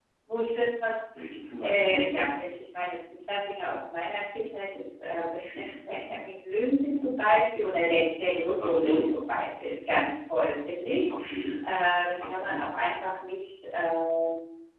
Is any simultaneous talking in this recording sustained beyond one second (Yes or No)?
No